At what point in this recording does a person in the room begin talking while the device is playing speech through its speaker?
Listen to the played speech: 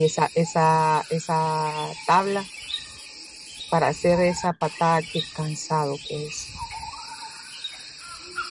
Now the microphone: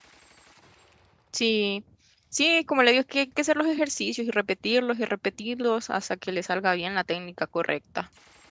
1.3 s

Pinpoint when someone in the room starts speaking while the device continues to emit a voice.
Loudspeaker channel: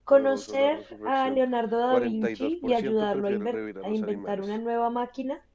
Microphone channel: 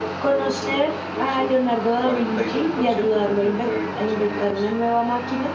none

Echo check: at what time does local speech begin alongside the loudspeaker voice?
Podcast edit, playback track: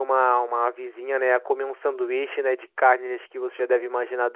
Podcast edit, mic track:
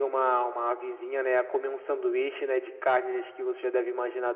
none

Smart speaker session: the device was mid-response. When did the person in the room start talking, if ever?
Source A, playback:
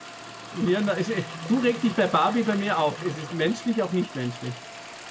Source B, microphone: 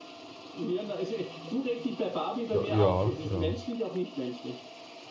2.5 s

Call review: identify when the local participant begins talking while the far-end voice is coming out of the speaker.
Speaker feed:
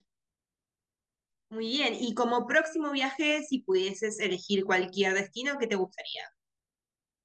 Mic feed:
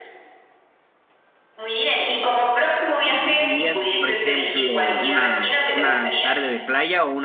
3.1 s

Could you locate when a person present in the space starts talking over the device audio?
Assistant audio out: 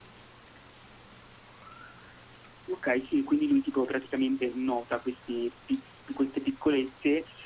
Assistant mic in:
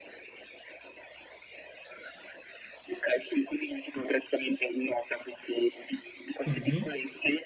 6.4 s

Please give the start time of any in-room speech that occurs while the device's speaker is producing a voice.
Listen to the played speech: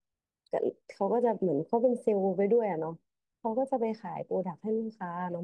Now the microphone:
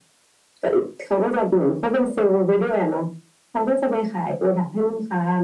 none

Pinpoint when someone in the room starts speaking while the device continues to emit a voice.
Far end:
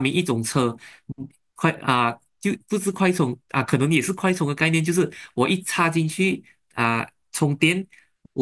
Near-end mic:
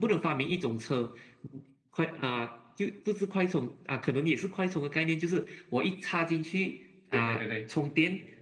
7.1 s

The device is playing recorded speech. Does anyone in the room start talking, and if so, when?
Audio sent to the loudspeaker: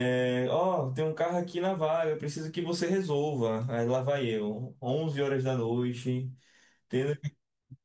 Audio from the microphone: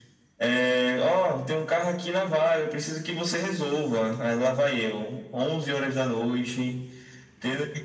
none

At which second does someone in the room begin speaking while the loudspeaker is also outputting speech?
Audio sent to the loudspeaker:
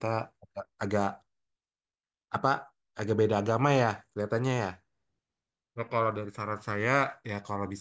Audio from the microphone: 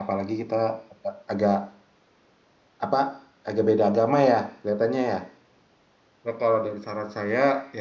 none

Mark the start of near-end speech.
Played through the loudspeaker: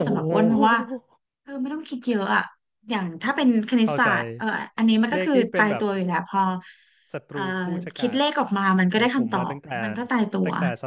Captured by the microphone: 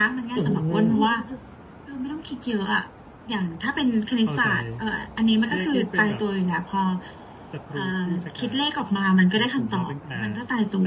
none

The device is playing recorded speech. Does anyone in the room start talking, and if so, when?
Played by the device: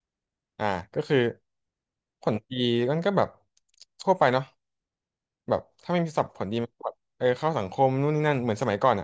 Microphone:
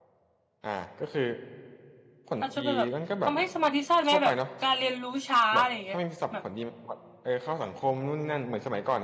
2.4 s

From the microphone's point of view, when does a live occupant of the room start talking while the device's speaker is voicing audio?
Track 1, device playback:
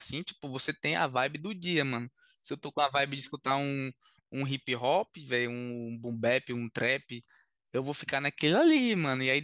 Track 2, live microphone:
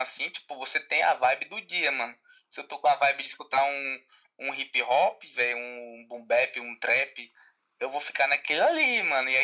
none

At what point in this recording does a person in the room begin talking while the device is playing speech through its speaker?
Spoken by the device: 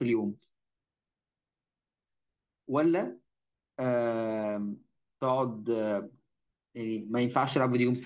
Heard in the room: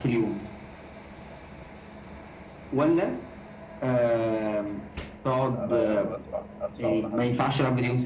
5.5 s

